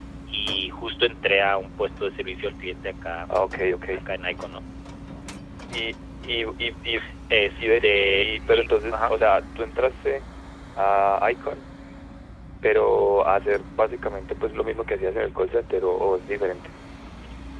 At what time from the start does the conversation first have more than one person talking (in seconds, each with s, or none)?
7.6 s